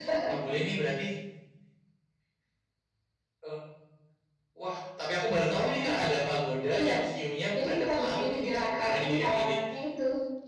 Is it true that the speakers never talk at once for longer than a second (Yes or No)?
No